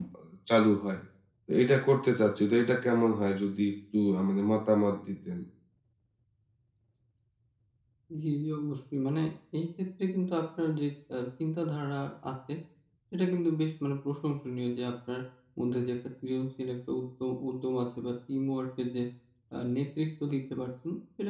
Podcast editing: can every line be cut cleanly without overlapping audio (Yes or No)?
Yes